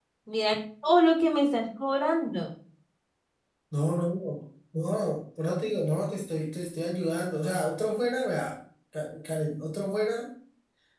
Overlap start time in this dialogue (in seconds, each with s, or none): none